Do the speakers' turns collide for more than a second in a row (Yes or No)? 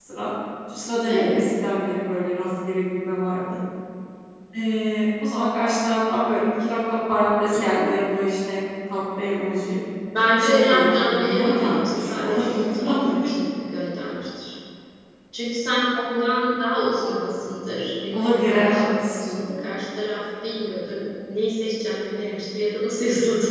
Yes